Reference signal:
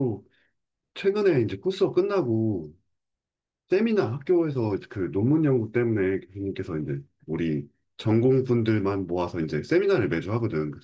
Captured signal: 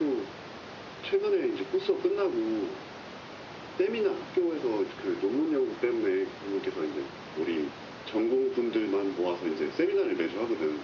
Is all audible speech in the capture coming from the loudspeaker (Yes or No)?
Yes